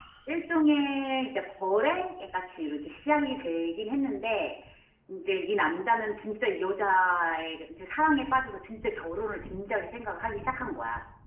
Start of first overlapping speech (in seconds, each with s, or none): none